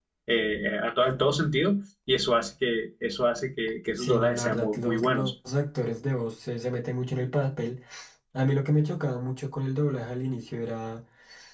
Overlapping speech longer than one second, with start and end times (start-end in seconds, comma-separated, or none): 4.0-5.3